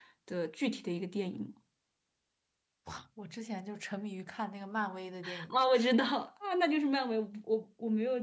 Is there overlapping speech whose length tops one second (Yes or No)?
No